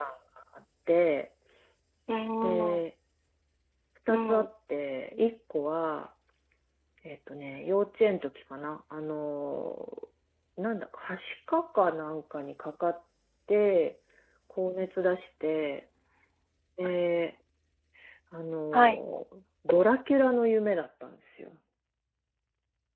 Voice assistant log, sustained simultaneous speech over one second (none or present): none